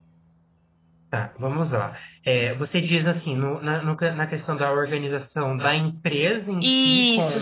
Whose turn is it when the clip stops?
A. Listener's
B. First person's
A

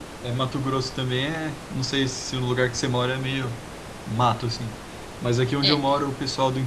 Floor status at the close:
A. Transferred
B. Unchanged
B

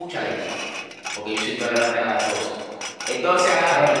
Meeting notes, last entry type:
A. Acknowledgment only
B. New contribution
B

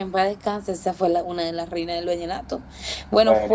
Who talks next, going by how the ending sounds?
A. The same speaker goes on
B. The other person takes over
A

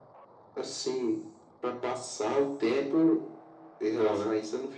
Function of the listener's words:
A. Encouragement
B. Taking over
A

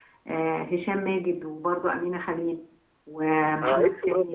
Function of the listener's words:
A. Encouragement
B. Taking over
B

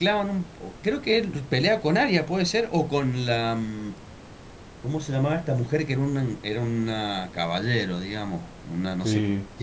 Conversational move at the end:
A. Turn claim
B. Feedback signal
A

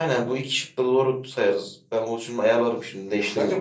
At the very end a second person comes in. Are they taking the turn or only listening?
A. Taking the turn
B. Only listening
A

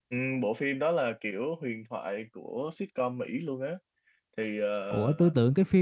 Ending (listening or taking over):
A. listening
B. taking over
B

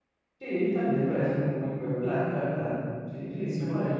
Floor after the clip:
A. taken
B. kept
A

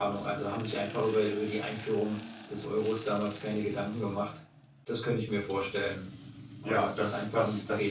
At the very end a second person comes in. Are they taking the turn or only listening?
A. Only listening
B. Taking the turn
B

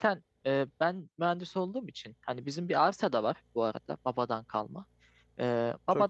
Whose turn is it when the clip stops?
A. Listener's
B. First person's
B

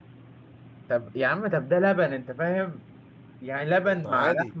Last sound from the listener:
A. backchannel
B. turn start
A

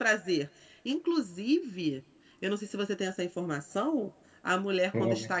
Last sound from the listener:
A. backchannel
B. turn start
A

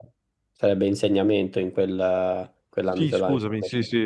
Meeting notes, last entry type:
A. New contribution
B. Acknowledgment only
A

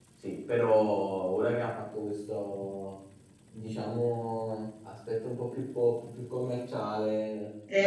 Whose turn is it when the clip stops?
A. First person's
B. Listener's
B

